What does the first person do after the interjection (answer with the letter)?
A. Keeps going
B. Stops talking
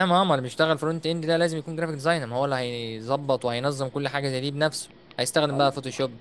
A